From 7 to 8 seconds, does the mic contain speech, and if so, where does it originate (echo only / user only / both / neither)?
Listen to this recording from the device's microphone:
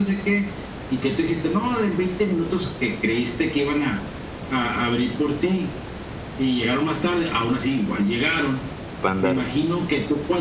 echo only